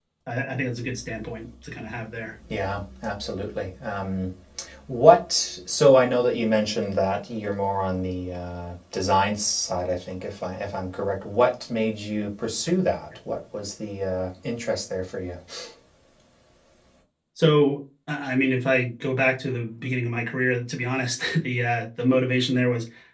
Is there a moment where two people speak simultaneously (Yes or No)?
No